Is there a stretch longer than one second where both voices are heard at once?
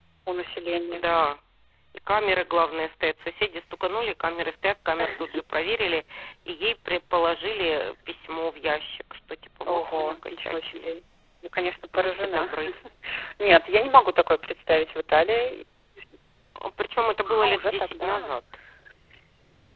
Yes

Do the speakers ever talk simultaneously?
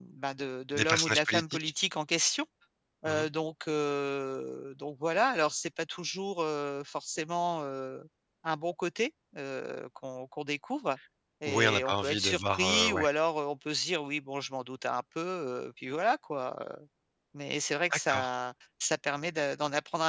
Yes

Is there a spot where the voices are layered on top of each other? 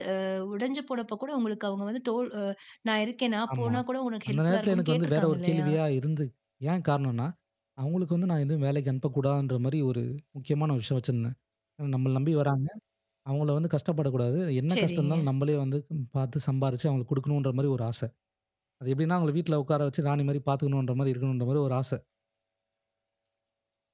Yes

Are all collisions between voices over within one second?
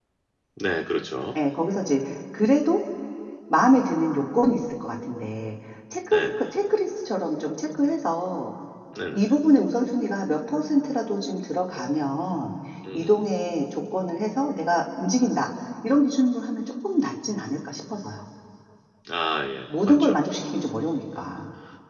Yes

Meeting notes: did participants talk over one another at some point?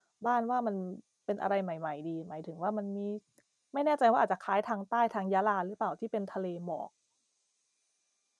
No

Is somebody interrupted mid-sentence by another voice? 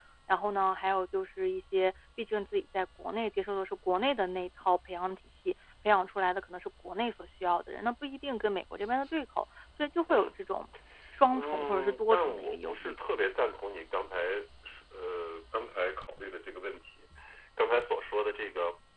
Yes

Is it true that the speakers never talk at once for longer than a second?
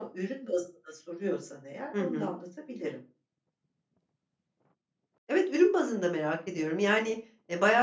Yes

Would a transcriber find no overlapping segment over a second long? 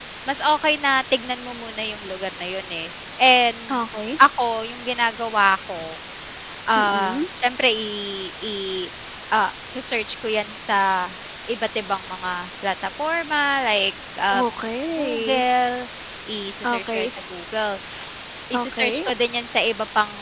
Yes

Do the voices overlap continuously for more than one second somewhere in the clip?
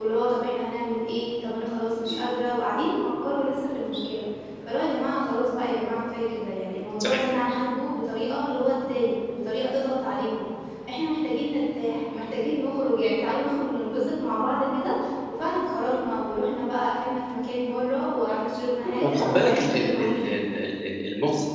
Yes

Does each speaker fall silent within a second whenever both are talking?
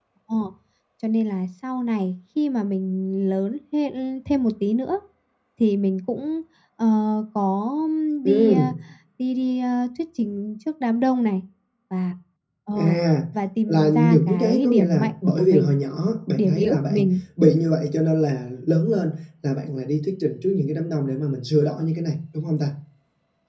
No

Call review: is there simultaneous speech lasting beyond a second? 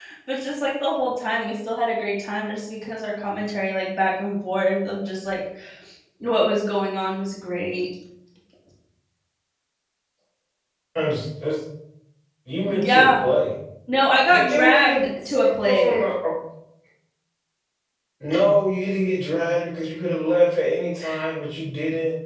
Yes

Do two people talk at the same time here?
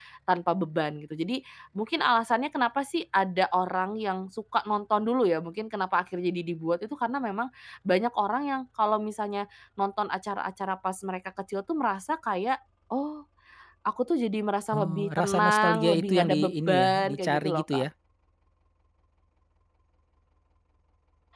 Yes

